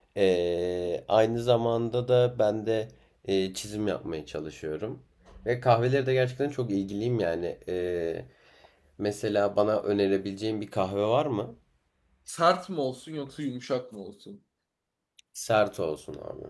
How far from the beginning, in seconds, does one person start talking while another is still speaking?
none

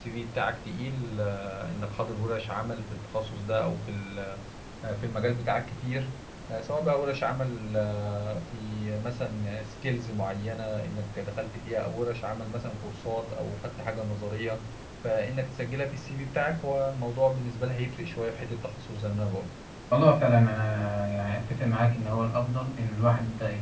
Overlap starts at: none

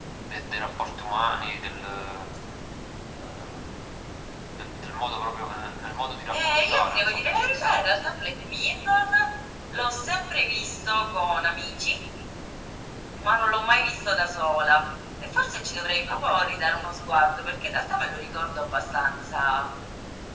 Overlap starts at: 6.3 s

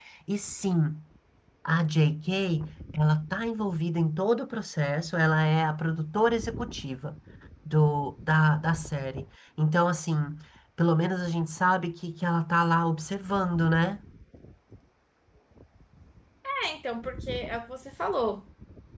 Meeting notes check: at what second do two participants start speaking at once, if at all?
none

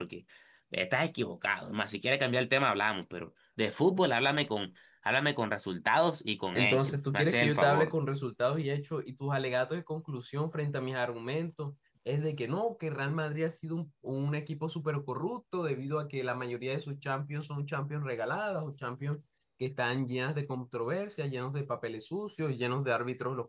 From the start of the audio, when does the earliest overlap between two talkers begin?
6.5 s

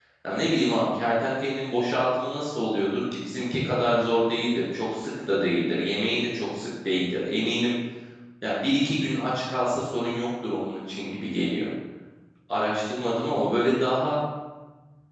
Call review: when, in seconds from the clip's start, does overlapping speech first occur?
none

